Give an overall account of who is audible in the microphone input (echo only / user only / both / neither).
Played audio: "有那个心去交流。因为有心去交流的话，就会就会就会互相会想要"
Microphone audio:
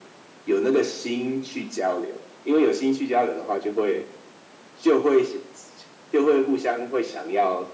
echo only